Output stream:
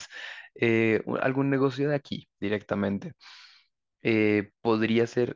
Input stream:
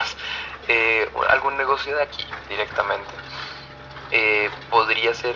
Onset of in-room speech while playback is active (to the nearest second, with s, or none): none